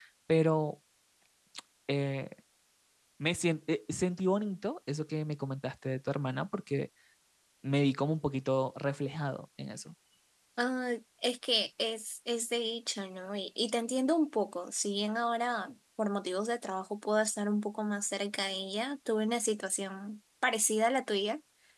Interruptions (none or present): none